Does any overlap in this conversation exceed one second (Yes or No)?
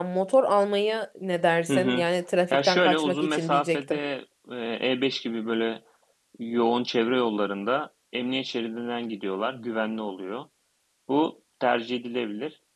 Yes